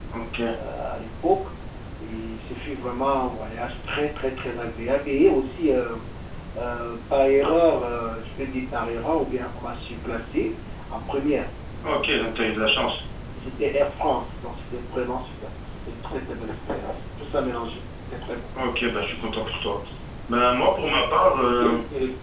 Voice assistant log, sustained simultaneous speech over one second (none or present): none